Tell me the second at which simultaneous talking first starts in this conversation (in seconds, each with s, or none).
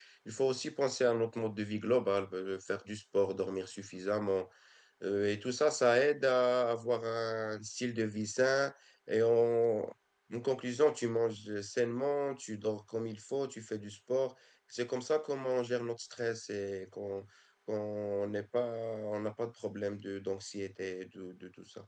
none